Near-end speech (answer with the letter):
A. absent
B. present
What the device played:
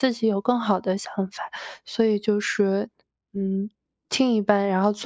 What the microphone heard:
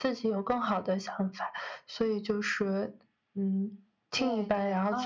B